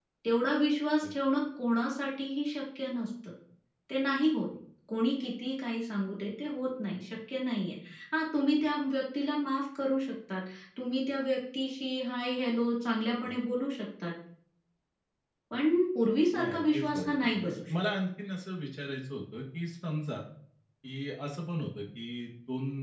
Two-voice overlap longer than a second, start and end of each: 16.4-17.9

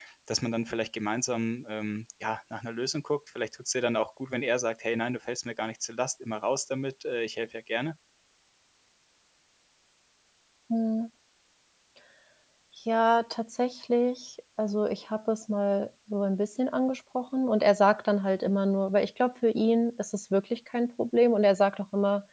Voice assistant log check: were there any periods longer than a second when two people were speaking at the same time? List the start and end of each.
none

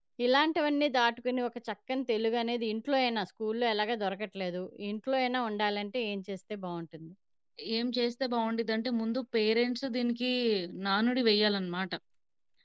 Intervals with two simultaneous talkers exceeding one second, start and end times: none

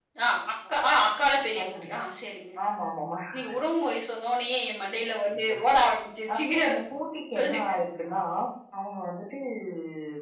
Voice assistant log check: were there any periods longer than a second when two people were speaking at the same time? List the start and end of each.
none

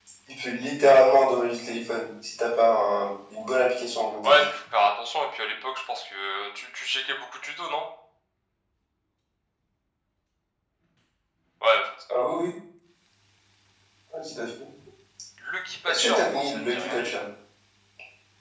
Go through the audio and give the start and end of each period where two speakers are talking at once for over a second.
15.9-17.2

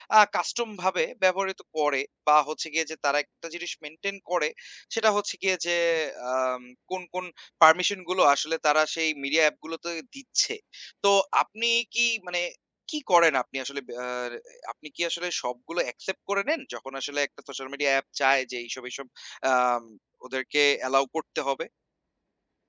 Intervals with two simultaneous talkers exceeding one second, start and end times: none

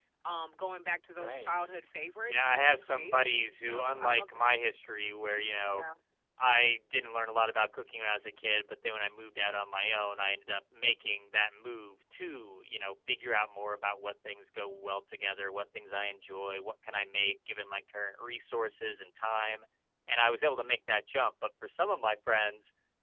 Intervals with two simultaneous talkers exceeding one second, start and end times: 2.3-4.5

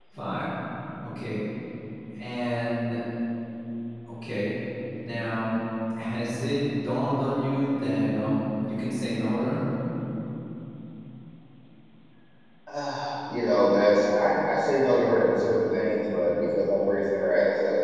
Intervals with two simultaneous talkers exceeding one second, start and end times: none

